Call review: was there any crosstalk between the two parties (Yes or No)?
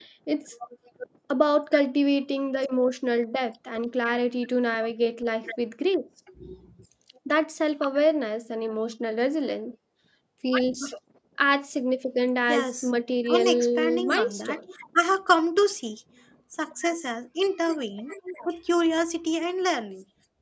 Yes